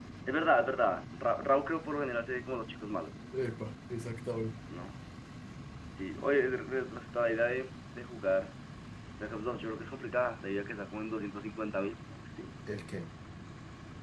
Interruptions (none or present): none